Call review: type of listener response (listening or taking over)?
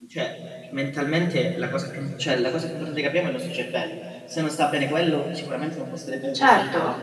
taking over